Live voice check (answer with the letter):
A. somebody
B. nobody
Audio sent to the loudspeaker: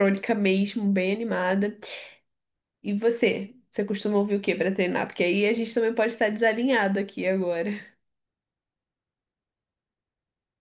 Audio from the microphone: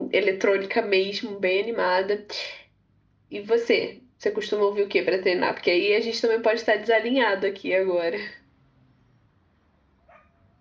B